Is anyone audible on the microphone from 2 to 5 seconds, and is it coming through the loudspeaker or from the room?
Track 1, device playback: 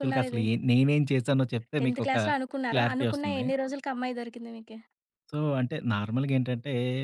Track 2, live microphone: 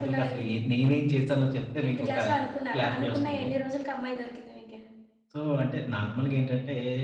echo only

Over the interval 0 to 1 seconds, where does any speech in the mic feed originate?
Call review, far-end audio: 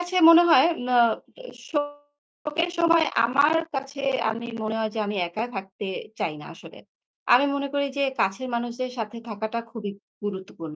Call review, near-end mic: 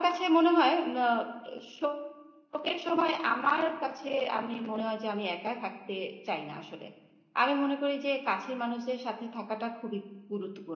echo only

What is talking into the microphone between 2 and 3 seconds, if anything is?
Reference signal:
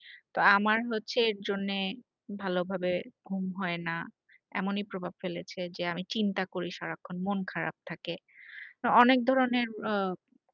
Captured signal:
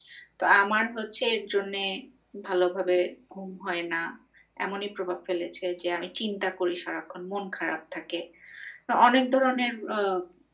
echo only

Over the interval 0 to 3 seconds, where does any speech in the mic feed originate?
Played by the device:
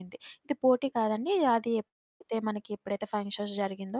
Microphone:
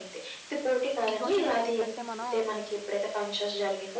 both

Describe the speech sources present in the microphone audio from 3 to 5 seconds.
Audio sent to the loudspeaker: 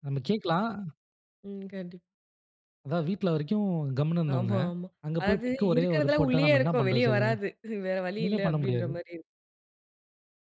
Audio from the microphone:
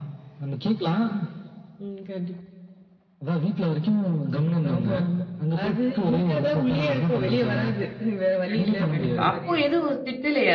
echo only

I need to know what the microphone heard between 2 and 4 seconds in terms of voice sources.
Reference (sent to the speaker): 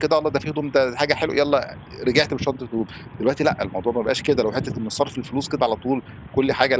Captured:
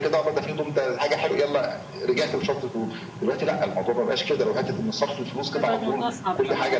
echo only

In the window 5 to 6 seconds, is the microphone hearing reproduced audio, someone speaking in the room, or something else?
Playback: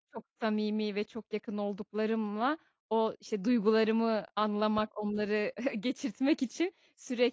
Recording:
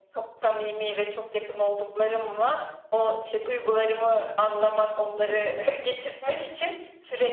both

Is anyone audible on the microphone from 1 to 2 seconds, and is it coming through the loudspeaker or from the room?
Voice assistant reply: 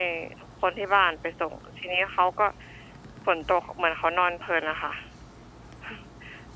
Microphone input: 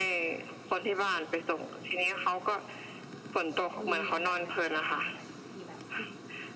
echo only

